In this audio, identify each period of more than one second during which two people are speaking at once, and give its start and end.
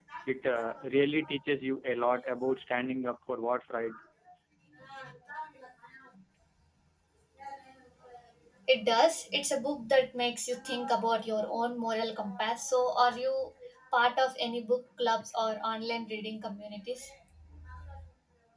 none

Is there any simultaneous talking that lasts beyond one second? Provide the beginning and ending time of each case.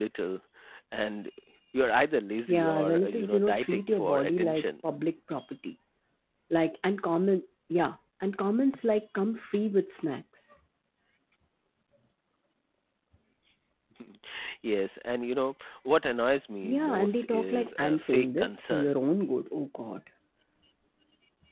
2.5-4.7, 16.6-18.9

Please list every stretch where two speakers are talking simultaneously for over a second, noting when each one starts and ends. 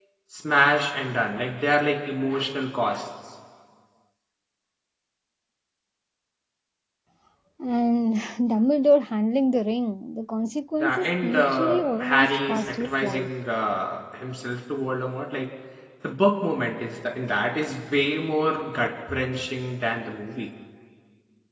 10.8-13.3

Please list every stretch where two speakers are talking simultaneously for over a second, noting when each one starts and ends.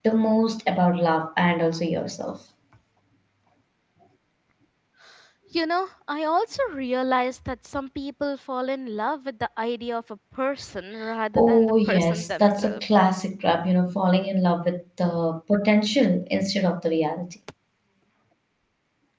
11.3-12.8

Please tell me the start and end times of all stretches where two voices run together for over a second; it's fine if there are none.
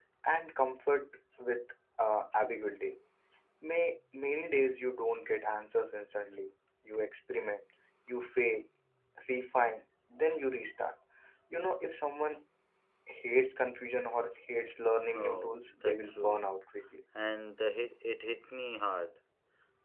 15.1-16.4

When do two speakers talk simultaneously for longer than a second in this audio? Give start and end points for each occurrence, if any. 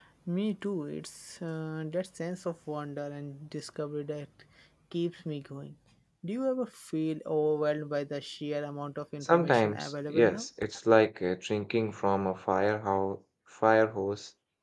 9.2-10.5

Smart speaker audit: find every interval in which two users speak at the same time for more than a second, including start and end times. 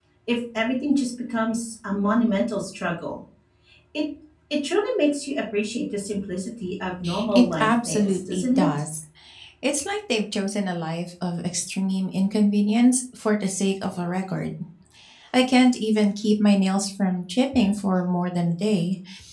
7.3-8.7

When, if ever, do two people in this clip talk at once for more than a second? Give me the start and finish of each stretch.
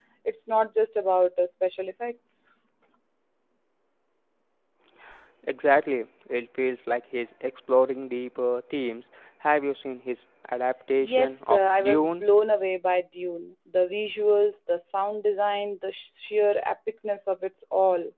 11.0-12.2

